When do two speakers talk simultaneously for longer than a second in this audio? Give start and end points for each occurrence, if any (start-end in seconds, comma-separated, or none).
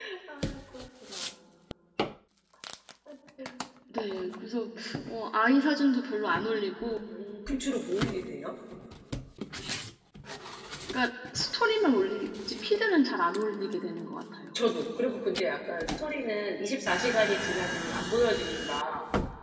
none